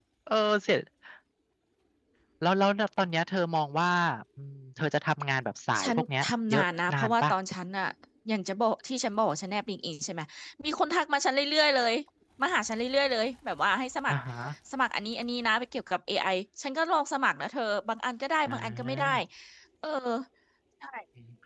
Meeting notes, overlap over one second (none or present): present